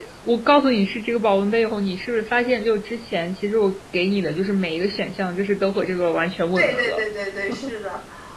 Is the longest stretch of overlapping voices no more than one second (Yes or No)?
Yes